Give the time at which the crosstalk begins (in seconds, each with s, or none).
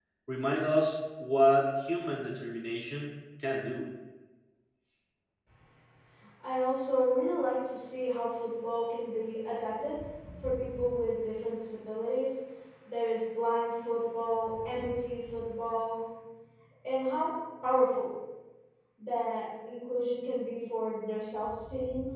none